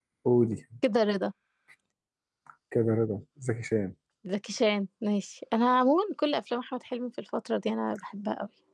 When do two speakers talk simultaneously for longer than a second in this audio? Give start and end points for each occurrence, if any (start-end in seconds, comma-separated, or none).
none